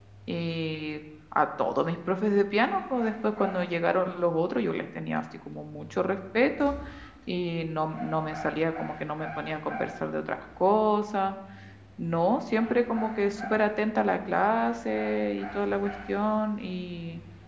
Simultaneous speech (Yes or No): No